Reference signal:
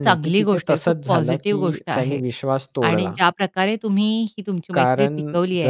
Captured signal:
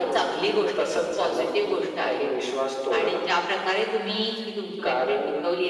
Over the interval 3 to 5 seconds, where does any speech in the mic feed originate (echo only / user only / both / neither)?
echo only